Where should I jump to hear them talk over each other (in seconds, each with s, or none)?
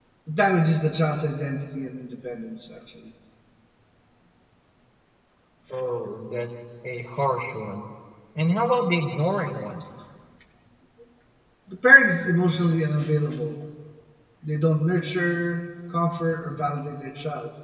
none